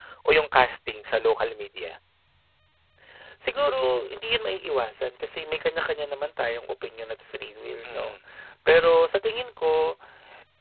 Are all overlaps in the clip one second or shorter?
Yes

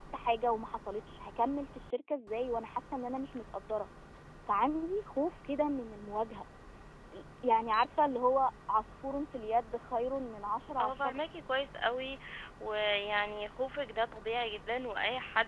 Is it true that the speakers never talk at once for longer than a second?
Yes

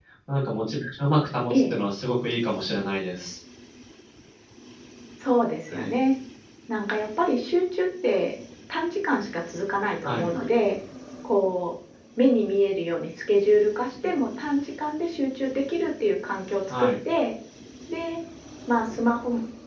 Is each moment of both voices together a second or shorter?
Yes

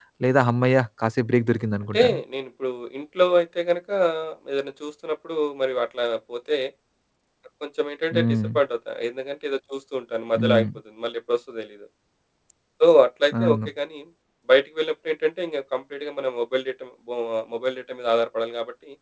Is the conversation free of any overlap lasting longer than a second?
Yes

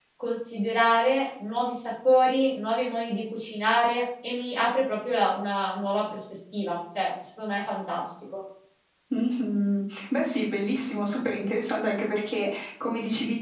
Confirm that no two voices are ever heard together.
Yes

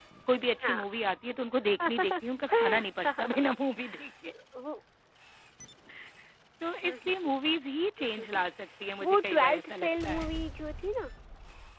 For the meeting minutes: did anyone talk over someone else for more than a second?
Yes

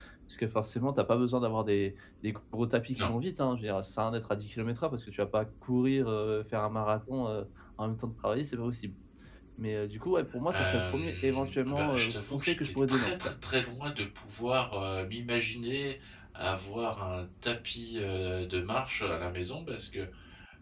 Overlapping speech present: Yes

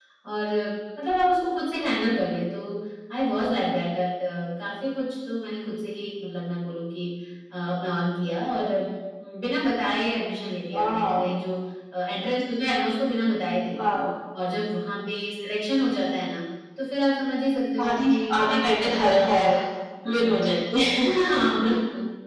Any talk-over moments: Yes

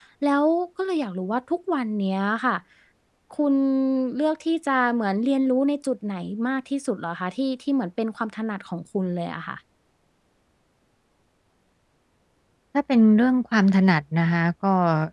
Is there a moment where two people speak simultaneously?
No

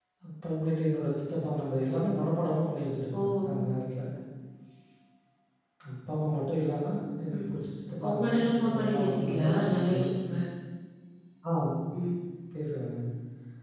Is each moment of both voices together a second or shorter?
No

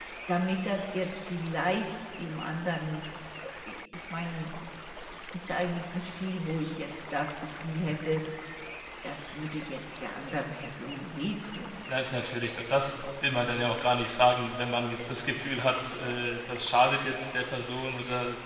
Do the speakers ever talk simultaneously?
No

